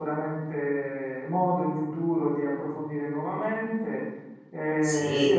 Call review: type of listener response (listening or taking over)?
listening